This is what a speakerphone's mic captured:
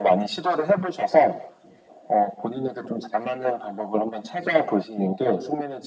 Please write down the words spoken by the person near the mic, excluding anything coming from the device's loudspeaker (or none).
none